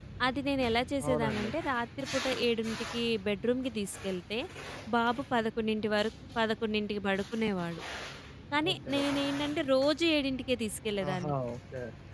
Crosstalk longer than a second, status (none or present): none